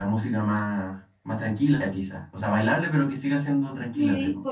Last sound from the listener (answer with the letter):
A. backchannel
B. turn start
B